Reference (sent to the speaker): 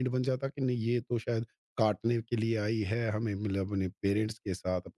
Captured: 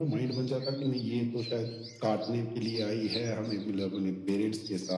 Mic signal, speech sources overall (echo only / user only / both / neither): both